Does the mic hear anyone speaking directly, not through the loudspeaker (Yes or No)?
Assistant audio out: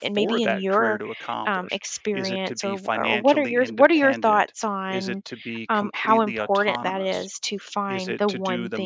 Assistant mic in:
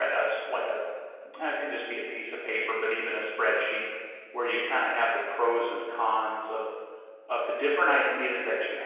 Yes